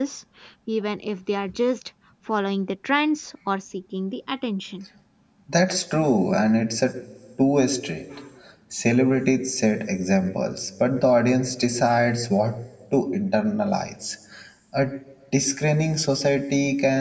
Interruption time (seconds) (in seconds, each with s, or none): none